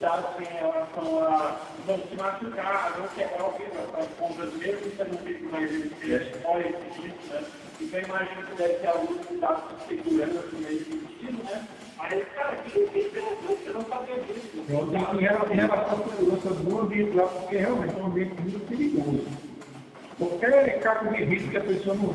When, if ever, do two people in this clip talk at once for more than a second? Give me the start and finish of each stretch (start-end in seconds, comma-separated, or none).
14.7-16.1